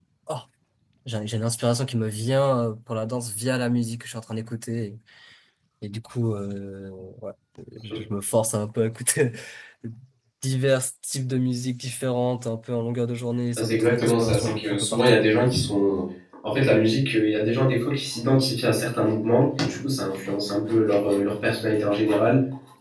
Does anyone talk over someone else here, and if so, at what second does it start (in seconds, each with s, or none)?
13.6 s